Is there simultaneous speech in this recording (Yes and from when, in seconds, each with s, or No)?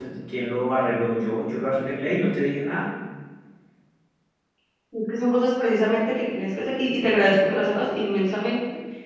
No